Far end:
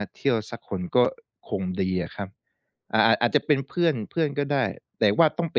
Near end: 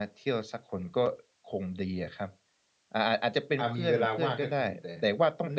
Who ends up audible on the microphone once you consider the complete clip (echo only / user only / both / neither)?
both